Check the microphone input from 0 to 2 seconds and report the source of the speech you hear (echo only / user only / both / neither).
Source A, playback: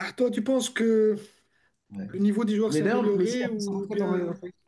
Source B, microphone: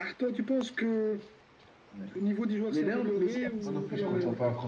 echo only